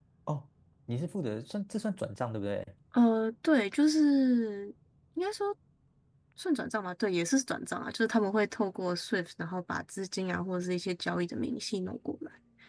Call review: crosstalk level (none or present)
none